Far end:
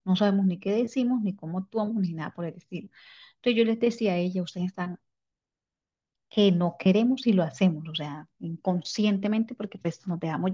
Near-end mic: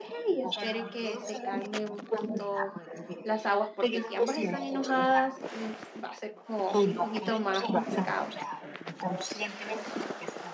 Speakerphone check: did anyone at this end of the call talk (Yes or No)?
Yes